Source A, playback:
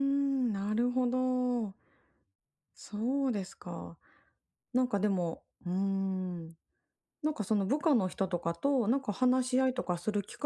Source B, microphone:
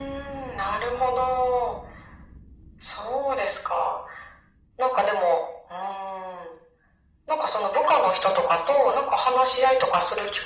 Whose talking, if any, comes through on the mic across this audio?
echo only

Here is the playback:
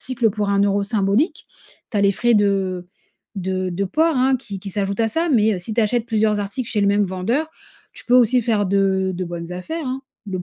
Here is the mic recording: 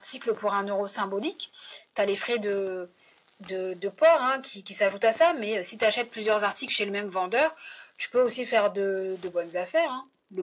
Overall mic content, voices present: echo only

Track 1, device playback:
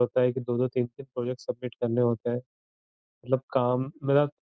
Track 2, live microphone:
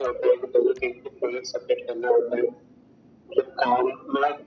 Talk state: echo only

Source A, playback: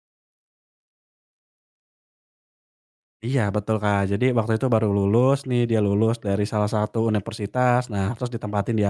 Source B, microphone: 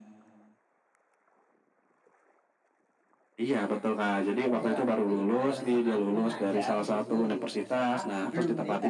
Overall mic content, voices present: both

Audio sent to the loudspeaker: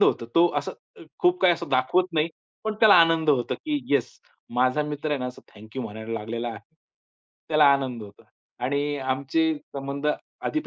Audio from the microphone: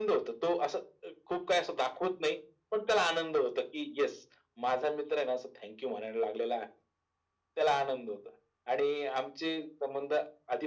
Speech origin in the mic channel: echo only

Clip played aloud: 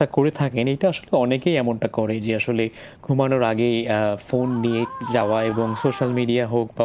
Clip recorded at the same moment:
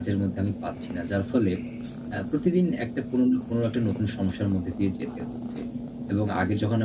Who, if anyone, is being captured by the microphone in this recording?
user only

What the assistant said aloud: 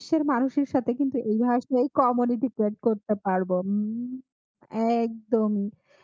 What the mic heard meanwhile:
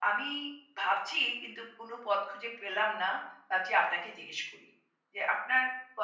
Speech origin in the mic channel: user only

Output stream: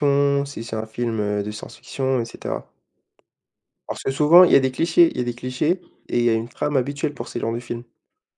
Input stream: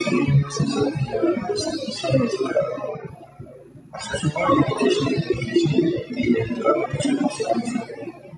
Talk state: echo only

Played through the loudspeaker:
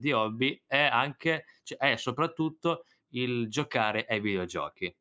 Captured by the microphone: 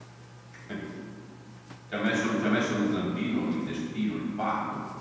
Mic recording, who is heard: user only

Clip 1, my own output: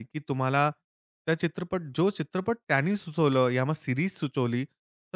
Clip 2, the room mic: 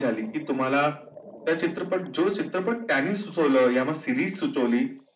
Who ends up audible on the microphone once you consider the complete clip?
echo only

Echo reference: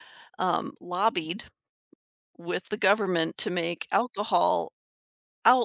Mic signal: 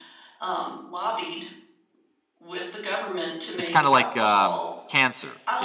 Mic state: both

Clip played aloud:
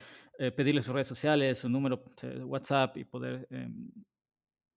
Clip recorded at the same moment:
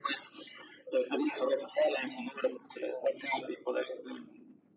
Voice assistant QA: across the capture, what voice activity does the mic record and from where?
echo only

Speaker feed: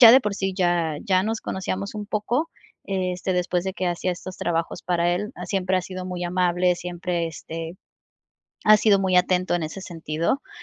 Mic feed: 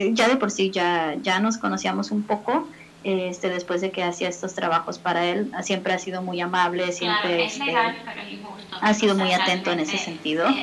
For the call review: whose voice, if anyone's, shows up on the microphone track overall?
both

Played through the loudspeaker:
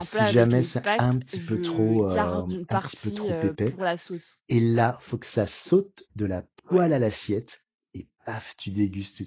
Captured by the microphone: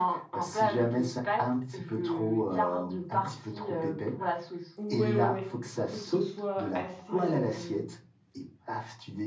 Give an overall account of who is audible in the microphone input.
both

